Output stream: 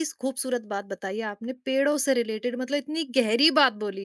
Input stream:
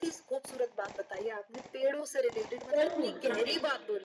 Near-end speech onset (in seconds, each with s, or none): 2.7 s